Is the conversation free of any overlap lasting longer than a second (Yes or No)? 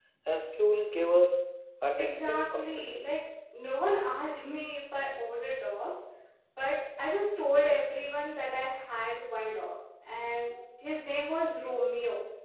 No